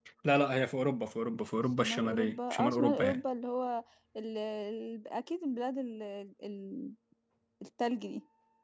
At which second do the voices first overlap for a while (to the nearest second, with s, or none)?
2 s